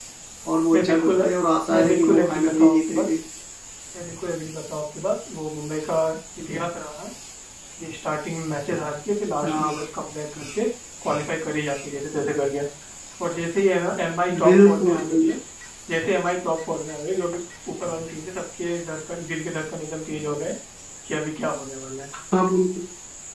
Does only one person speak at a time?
No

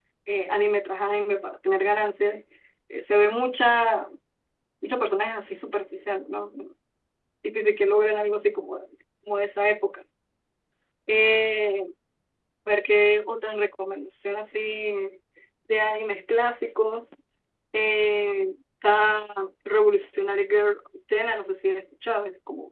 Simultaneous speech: No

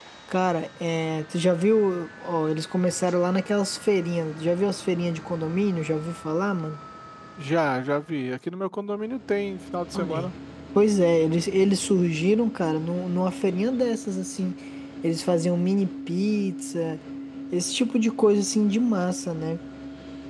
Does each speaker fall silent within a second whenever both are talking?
Yes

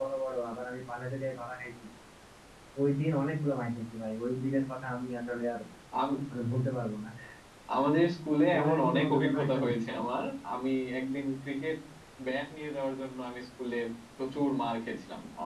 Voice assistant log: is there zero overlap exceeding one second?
No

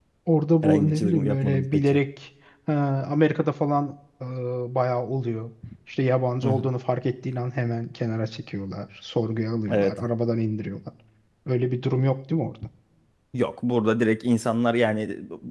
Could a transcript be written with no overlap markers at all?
No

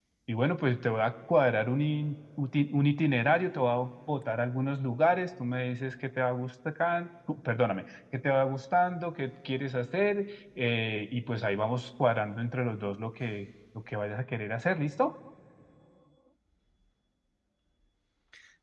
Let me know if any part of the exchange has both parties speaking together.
No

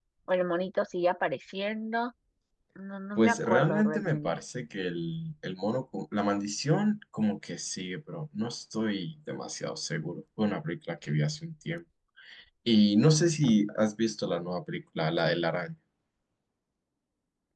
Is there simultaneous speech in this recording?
Yes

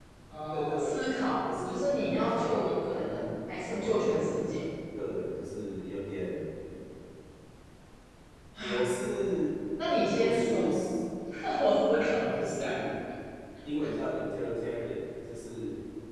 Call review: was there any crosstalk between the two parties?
Yes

